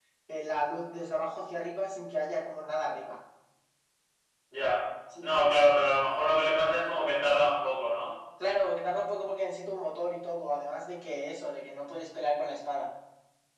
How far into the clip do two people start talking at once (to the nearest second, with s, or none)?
none